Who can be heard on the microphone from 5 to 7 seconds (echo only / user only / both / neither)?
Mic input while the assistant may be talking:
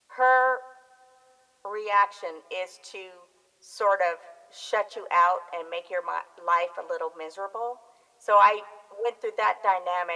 echo only